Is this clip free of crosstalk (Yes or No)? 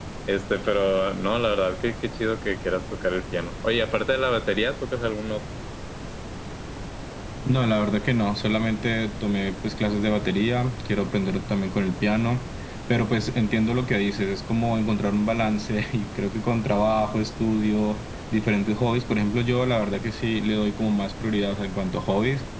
Yes